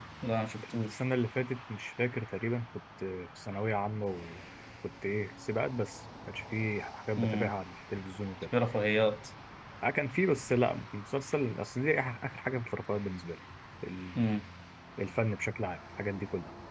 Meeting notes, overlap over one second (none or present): none